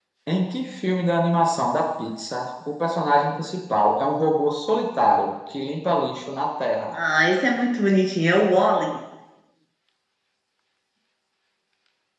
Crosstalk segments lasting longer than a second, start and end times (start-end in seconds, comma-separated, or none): none